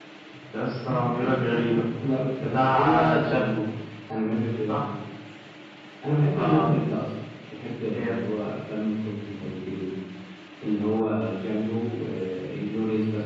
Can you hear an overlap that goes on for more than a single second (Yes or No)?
Yes